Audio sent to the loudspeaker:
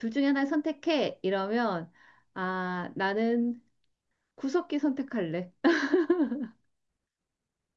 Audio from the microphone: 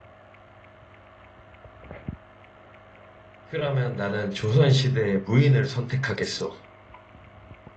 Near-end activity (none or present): present